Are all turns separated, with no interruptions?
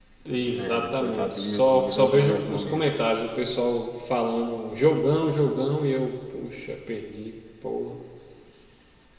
No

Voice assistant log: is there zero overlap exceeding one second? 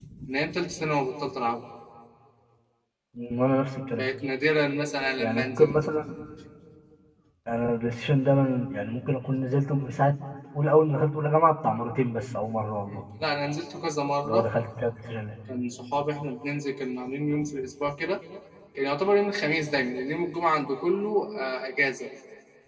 Yes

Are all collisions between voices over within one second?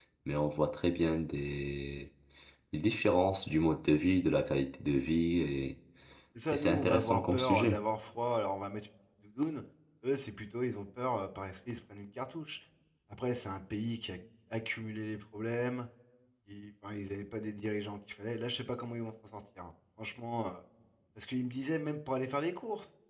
No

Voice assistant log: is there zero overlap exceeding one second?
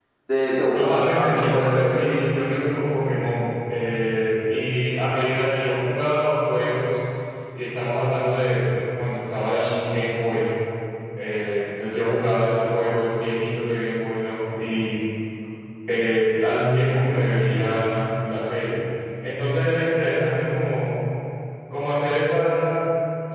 No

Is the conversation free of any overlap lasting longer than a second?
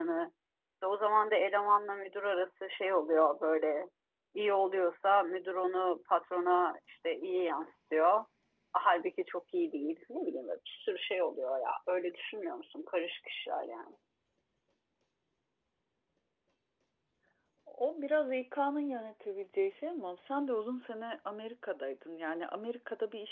Yes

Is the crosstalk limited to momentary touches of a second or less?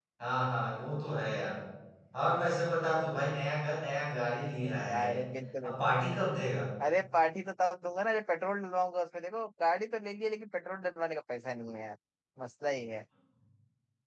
Yes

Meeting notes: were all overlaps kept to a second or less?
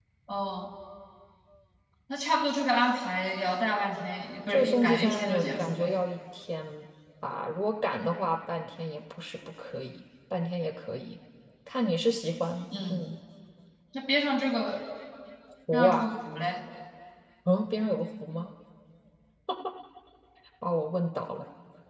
No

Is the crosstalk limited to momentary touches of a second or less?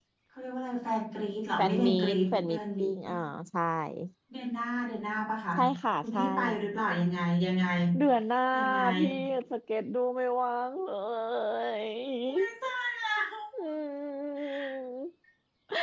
No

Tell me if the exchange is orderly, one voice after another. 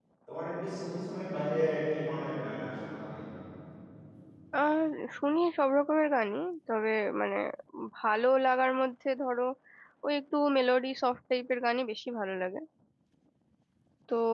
Yes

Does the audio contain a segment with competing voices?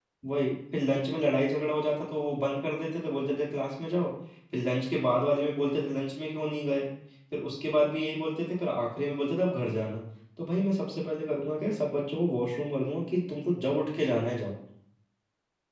No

